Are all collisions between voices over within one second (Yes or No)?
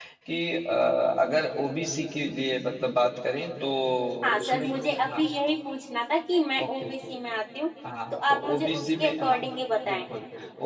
No